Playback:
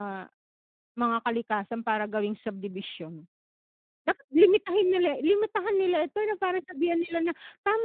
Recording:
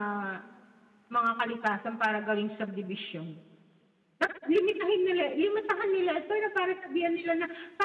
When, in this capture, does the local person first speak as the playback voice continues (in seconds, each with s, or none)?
none